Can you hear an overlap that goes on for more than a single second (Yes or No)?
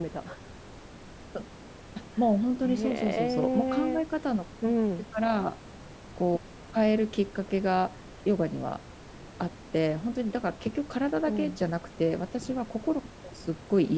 Yes